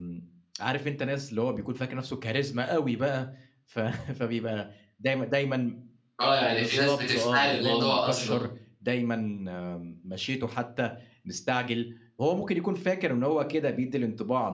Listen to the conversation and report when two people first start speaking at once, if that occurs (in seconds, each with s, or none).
6.5 s